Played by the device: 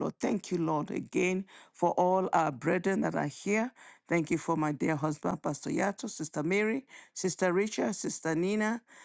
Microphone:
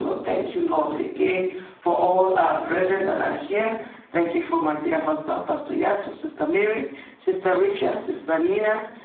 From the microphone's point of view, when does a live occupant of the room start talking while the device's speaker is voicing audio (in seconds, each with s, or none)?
none